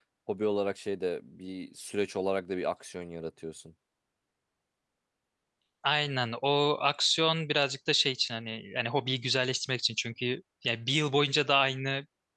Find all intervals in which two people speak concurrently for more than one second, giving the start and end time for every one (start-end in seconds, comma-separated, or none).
none